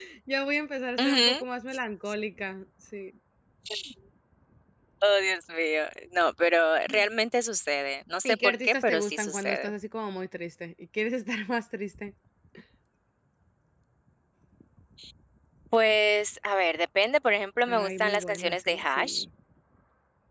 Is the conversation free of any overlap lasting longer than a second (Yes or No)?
No